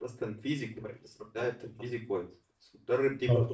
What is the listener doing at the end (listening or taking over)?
listening